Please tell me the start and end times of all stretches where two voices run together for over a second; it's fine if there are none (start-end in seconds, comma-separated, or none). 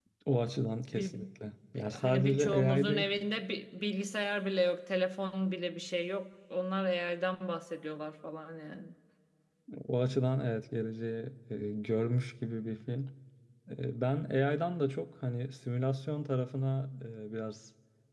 1.8-3.0